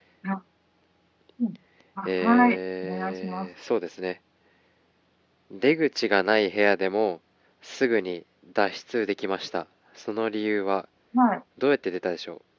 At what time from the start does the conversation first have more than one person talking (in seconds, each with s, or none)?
2.0 s